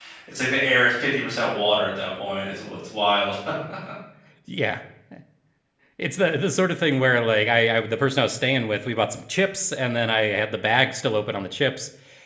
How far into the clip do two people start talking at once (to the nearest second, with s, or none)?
none